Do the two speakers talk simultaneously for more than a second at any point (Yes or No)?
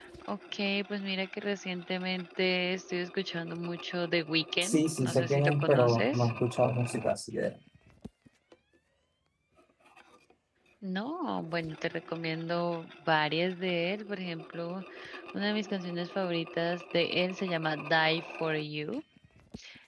Yes